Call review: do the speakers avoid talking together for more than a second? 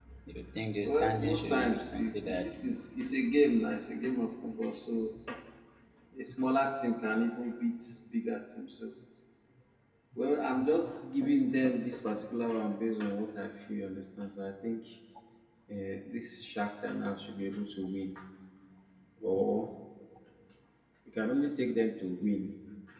No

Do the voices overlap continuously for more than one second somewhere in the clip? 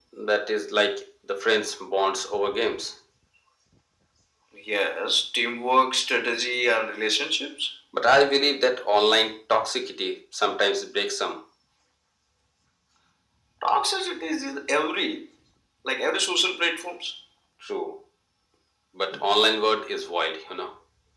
No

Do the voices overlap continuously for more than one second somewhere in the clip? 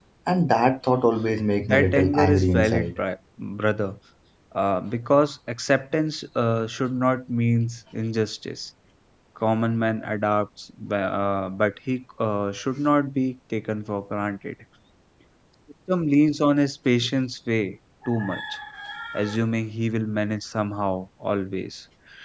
Yes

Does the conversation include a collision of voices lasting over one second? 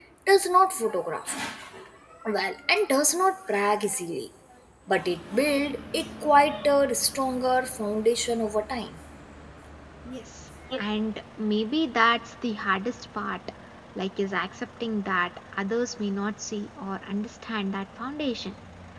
No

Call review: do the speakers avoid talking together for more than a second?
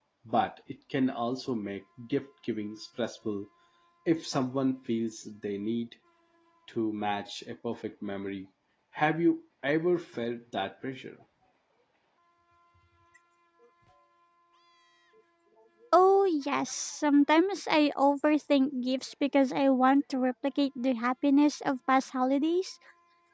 Yes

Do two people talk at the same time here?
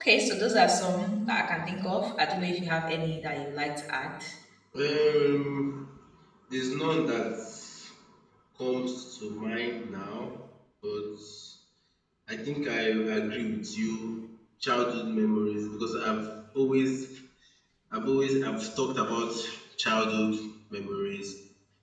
No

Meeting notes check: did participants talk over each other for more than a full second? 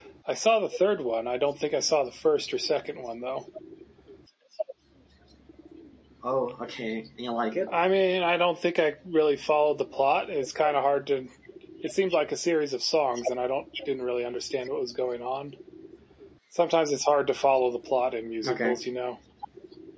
No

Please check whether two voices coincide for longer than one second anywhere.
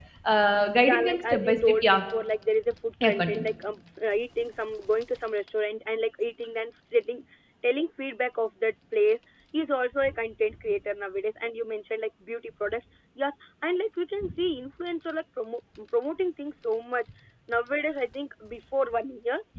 Yes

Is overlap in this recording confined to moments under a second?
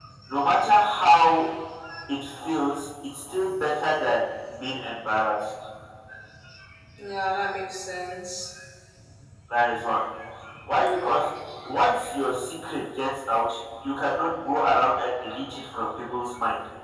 Yes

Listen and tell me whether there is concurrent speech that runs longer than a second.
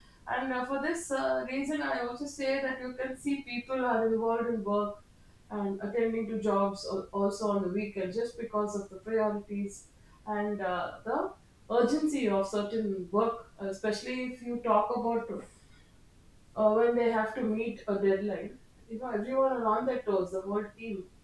No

